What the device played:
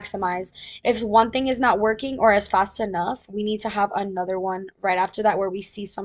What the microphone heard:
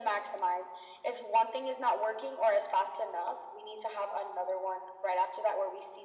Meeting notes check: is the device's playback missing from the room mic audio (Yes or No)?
No